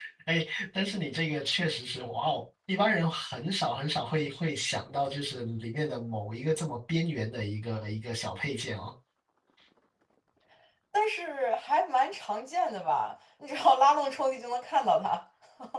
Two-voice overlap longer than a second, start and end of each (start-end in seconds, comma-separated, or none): none